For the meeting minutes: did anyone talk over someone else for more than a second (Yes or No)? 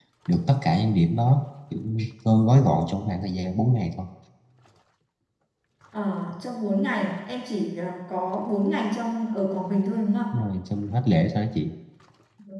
No